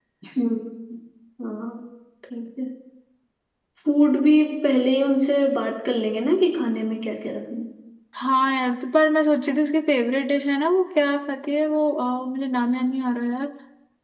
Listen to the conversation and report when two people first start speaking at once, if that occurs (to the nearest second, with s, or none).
none